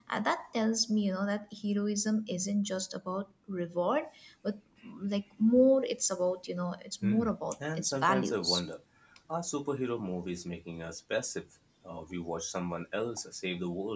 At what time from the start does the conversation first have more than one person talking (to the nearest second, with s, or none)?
7 s